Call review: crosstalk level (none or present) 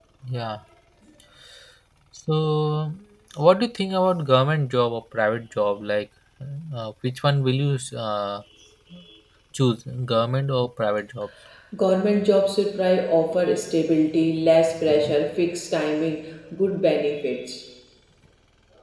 none